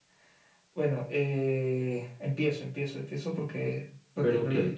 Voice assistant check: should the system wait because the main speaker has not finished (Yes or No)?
No